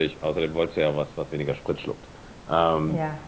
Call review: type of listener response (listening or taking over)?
listening